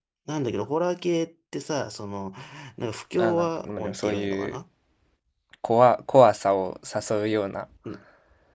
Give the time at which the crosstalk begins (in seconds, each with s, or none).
3.2 s